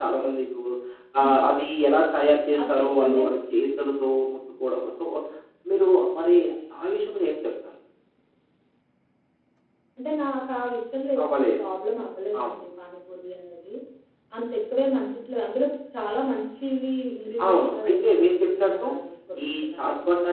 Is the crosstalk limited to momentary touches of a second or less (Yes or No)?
No